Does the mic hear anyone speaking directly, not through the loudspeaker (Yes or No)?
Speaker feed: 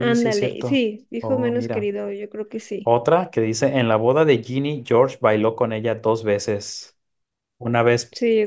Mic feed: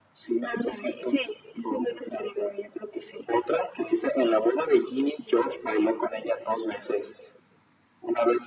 No